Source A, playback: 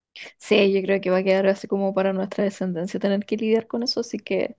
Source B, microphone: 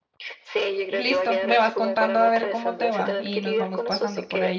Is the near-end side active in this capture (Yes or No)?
Yes